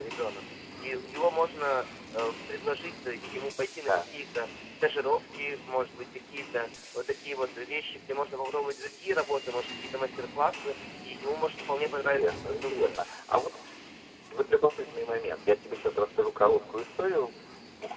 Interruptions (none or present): present